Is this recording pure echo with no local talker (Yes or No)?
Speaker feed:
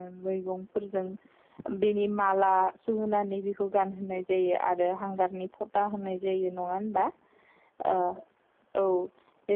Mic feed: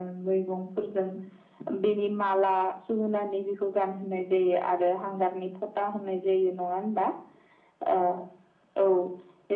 Yes